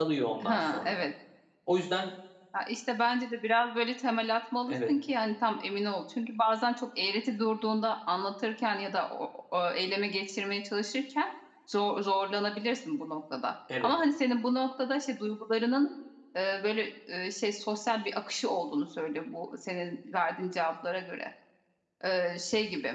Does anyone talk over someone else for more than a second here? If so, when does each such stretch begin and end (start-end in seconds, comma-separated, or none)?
none